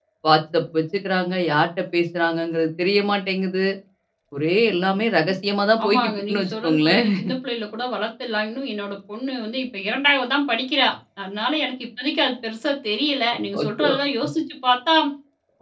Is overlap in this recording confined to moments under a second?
No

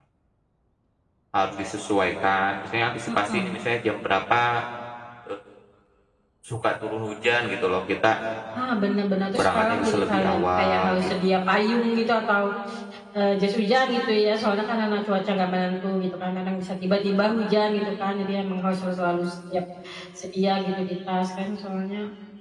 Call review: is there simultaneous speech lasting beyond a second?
Yes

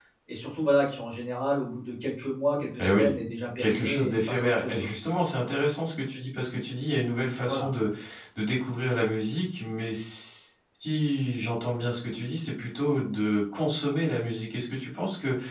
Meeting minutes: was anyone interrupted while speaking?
Yes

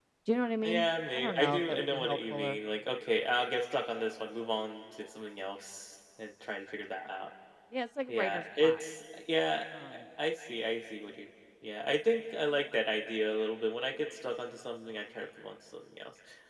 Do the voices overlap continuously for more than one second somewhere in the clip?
Yes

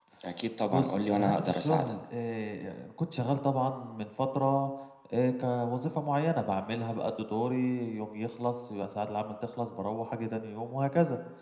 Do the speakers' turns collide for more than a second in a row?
Yes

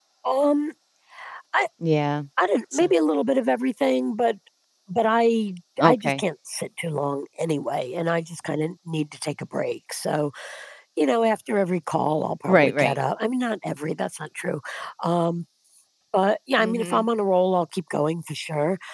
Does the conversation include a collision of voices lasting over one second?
No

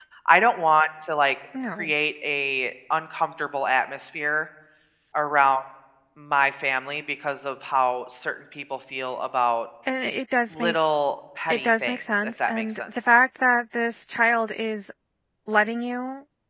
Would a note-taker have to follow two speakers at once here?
Yes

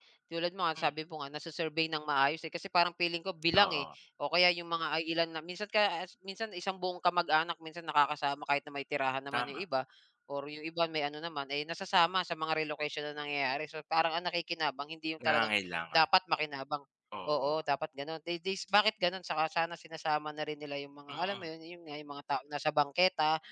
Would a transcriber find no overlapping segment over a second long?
Yes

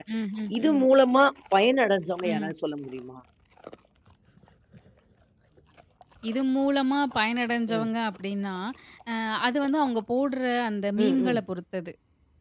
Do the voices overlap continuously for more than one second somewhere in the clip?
No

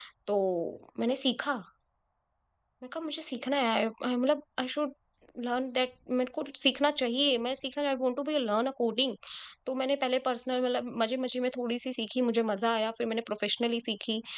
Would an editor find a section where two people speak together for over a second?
No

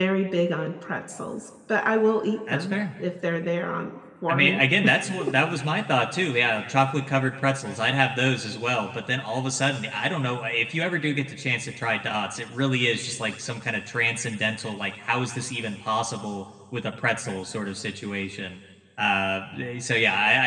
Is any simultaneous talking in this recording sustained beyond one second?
No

